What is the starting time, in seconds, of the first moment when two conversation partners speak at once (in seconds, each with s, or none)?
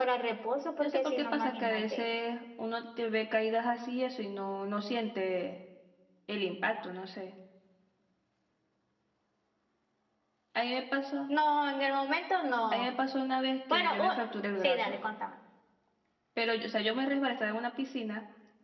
0.8 s